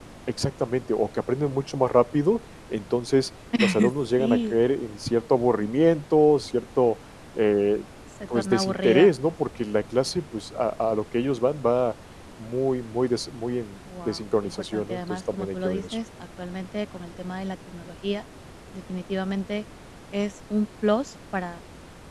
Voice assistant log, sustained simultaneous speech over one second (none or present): present